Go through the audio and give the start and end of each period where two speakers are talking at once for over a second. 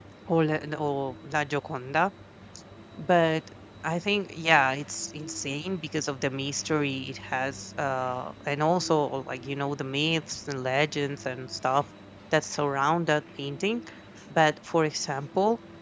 none

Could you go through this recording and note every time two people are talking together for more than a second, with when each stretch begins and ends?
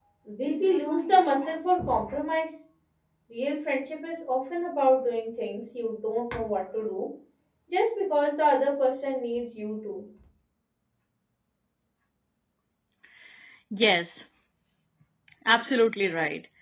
none

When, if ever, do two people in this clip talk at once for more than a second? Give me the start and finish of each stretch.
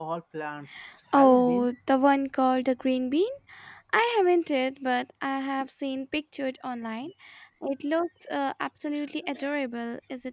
none

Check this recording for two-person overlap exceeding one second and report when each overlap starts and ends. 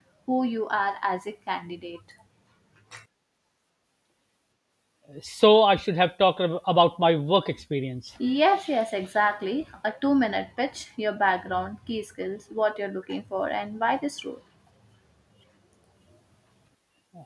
none

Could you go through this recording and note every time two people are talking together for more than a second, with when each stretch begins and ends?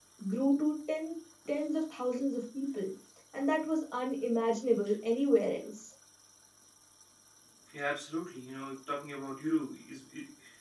none

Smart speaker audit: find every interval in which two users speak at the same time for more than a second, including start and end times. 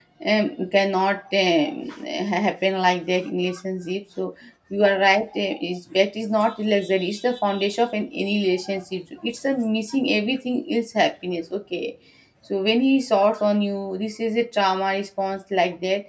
none

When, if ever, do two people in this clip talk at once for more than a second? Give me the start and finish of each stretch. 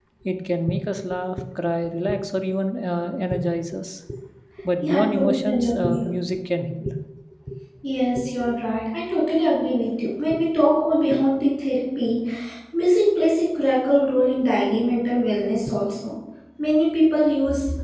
4.8-6.1

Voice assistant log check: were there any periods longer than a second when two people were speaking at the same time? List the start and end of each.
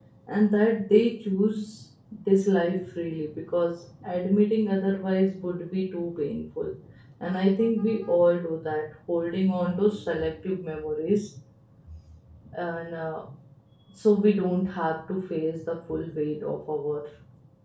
none

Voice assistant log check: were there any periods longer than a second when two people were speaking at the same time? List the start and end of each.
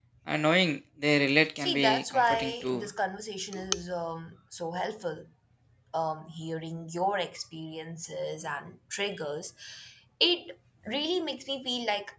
1.6-2.9

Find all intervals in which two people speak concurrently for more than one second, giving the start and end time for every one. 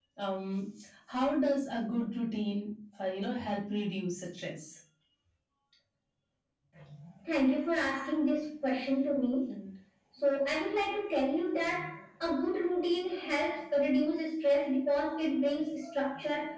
none

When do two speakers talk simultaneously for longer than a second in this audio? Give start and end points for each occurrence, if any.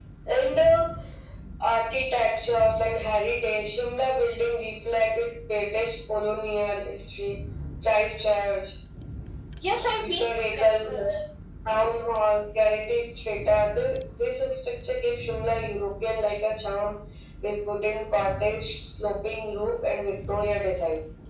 10.0-11.2

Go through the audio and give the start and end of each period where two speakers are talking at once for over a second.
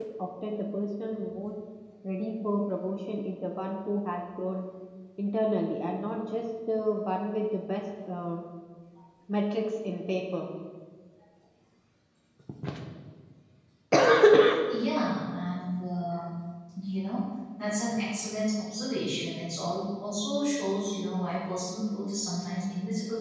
none

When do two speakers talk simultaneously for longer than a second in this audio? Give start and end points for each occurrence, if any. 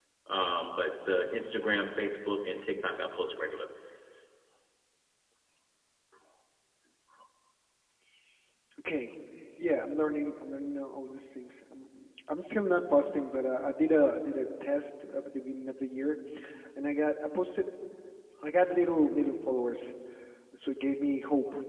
none

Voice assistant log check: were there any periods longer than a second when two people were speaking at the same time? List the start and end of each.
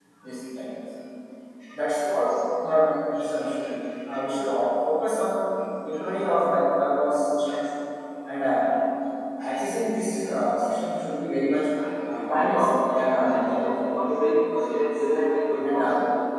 12.3-13.7

